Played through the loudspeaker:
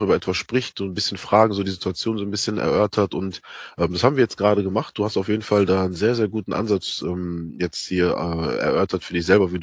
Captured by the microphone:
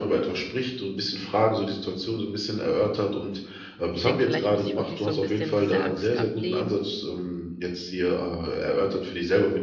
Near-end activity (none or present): present